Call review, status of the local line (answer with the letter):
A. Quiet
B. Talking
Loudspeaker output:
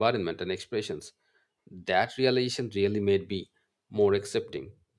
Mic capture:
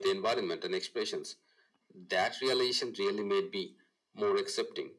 A